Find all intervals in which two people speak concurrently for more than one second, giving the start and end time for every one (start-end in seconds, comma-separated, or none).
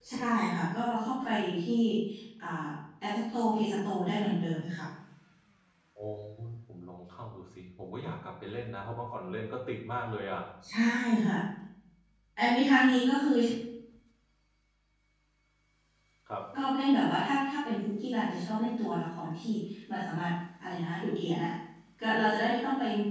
none